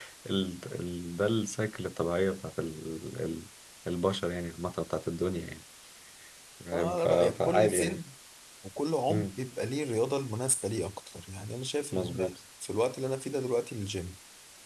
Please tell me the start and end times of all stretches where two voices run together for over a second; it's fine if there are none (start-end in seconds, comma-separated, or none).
6.7-8.0